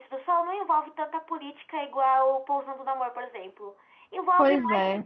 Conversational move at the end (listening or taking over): listening